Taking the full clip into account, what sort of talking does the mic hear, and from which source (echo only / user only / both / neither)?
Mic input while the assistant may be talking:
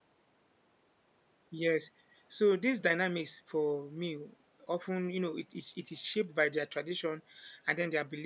user only